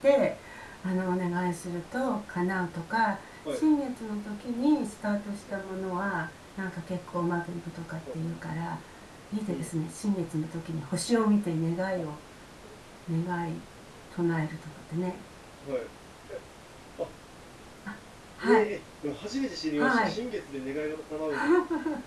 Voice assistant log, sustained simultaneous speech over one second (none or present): none